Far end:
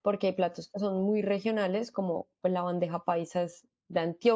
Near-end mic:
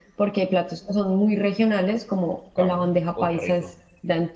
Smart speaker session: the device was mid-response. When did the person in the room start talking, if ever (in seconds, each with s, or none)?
2.5 s